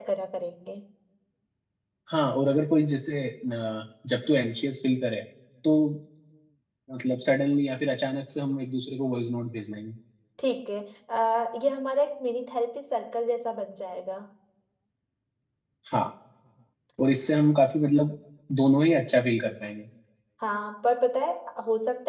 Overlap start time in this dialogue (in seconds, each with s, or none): none